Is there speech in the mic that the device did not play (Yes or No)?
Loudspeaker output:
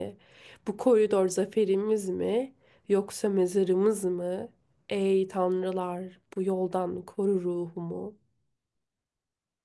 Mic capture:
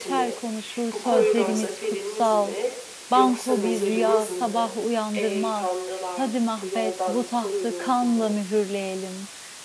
Yes